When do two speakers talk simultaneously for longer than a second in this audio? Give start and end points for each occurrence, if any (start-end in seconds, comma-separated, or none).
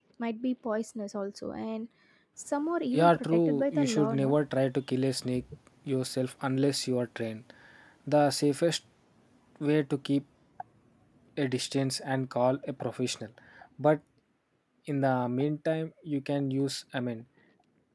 2.9-4.4